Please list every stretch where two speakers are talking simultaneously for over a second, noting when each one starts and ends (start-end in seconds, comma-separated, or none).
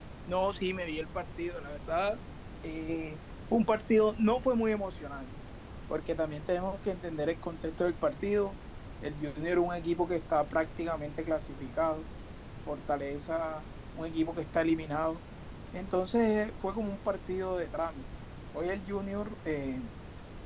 none